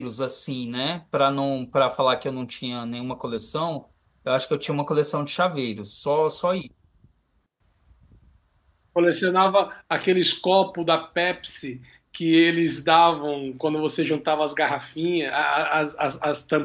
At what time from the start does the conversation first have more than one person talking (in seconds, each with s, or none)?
none